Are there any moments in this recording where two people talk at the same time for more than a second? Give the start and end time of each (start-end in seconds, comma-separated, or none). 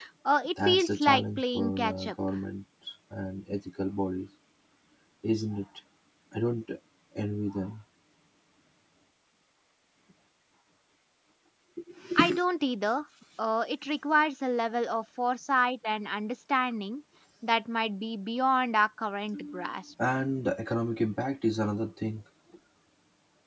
0.6-2.1